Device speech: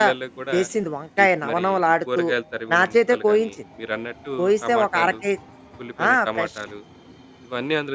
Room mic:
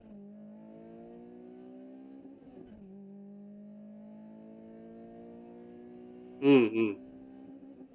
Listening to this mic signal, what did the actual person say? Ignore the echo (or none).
హ్మ్. హ్మ్.